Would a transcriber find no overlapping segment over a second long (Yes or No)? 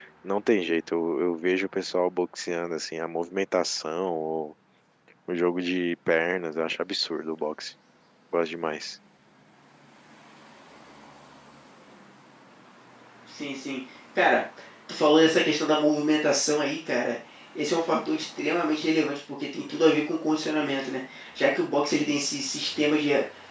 Yes